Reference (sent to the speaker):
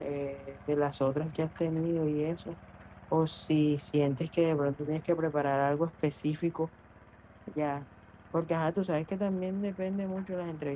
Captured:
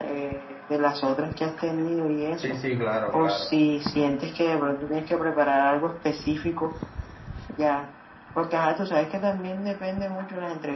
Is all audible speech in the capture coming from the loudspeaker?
No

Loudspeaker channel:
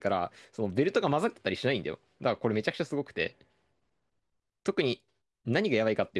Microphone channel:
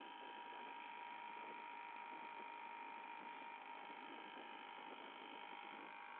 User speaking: No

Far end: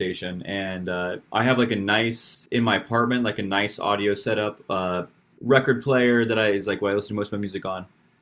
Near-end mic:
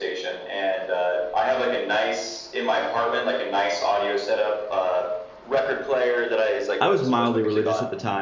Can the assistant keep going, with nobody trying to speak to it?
No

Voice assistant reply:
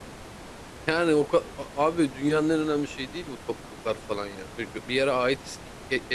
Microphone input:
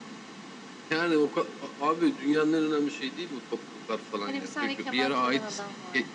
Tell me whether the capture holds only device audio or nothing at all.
No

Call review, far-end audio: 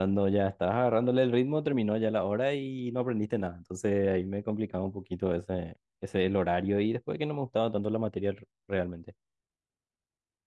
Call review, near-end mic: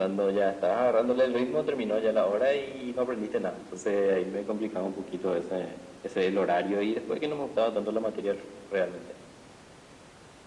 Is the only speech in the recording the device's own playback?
Yes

